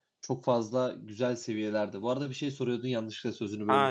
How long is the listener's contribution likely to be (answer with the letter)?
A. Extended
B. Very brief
A